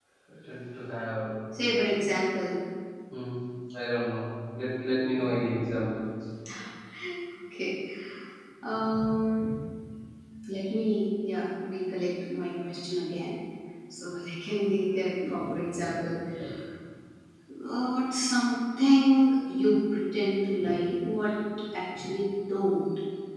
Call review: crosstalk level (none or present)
none